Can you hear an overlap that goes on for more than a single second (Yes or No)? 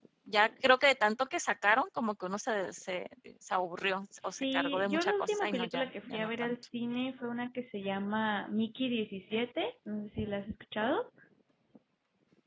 Yes